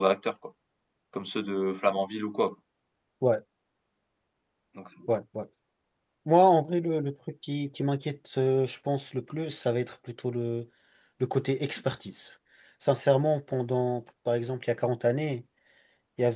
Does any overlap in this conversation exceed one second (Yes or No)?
No